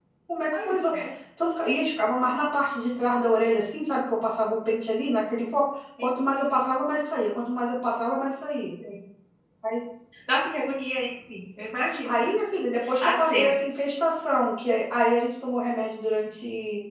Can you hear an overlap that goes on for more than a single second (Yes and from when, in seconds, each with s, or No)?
No